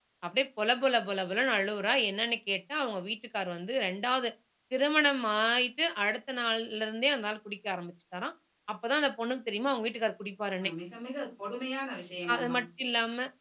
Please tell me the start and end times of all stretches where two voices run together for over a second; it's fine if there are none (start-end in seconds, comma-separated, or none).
none